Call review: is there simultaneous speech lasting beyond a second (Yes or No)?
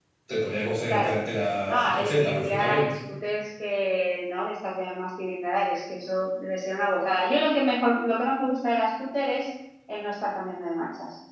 Yes